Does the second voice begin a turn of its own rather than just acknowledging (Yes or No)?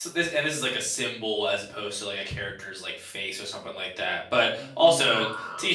No